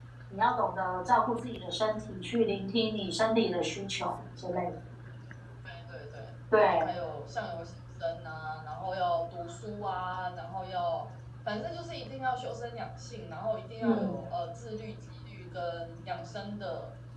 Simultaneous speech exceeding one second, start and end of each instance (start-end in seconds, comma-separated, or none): none